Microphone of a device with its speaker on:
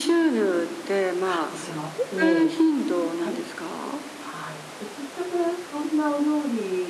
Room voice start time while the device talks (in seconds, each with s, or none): 1.2 s